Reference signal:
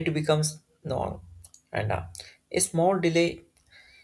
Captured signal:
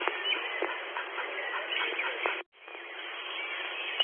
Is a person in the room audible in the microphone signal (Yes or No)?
No